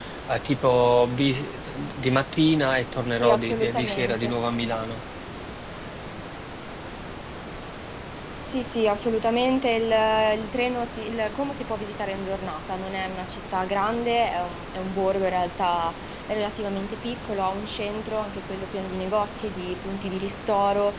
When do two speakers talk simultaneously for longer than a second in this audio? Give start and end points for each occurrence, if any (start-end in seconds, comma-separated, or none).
3.2-4.7